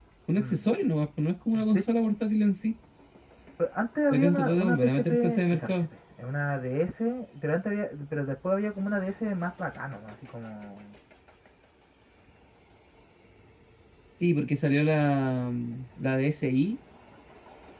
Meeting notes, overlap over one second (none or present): present